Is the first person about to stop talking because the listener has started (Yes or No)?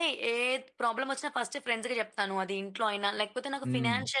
No